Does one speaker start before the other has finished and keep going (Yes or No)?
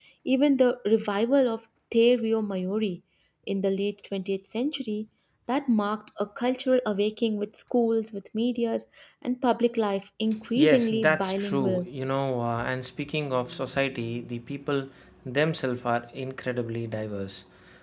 Yes